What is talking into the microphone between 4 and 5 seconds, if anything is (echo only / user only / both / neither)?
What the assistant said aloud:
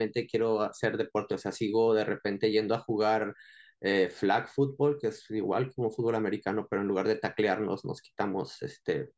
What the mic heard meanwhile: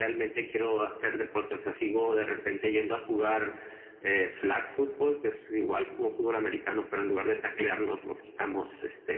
echo only